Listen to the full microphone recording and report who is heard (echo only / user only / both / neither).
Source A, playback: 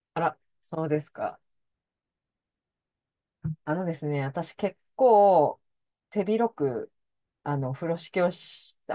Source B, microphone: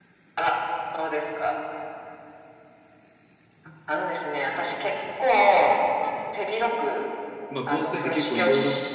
both